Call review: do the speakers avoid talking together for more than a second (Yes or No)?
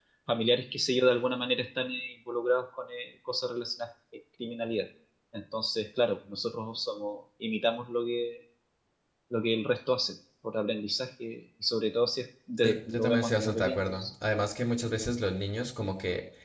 No